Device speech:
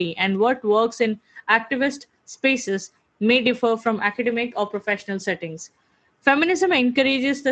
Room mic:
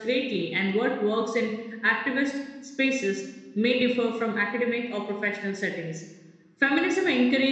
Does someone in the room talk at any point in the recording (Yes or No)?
No